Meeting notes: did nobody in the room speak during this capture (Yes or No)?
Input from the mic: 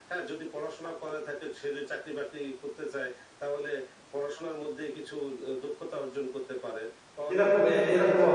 No